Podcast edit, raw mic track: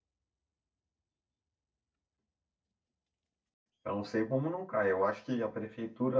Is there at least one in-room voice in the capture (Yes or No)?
Yes